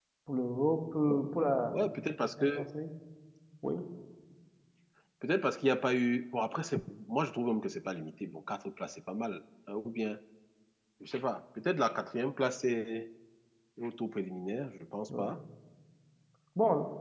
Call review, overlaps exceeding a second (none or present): none